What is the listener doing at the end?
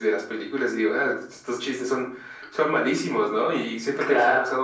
listening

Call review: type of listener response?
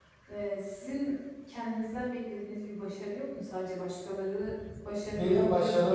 taking over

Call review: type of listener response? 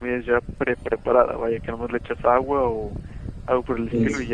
listening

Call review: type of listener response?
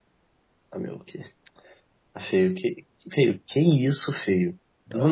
taking over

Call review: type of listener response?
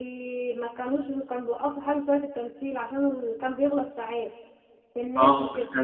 taking over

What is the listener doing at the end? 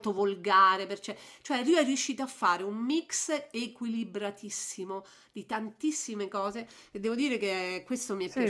taking over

